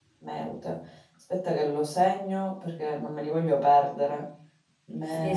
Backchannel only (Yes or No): No